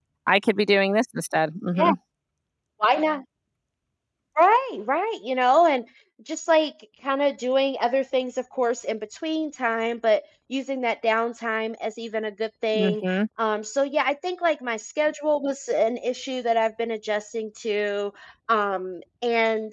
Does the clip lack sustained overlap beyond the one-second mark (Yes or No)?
Yes